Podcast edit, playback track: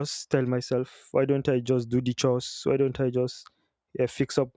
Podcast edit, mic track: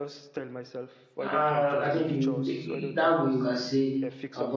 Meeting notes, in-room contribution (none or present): present